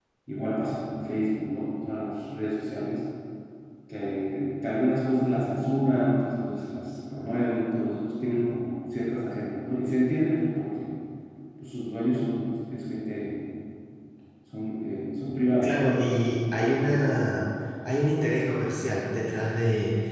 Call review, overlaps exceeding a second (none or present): none